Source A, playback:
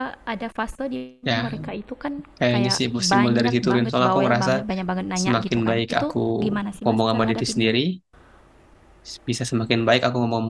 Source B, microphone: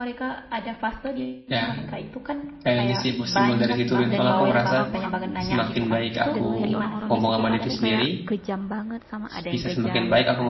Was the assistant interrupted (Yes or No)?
Yes